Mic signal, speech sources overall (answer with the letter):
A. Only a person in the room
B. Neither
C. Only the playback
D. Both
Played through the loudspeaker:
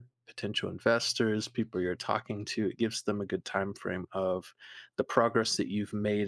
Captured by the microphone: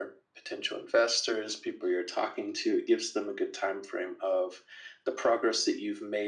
C